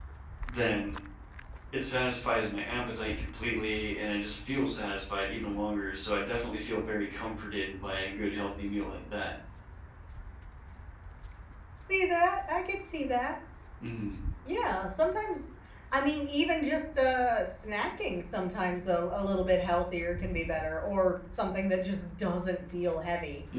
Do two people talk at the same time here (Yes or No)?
No